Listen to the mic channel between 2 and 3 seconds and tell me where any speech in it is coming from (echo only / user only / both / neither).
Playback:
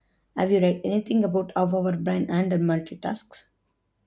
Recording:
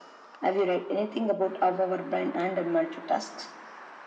echo only